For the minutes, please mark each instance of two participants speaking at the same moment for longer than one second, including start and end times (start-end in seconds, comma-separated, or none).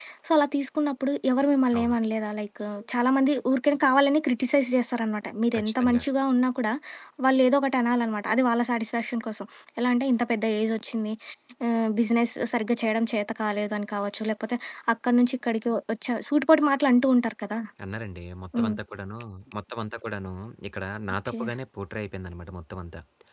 none